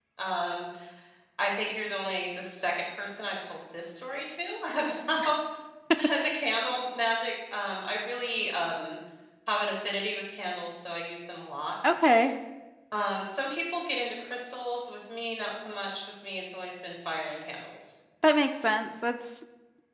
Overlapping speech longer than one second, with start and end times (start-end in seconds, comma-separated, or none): none